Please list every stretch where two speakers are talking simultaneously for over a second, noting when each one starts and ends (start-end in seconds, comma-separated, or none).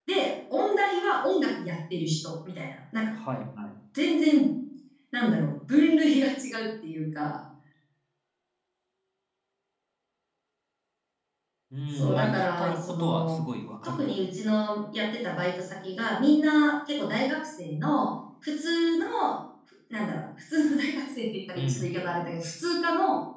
11.9-13.4